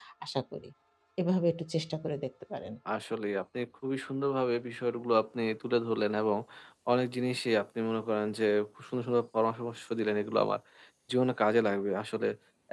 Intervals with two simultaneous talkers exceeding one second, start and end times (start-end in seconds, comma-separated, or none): none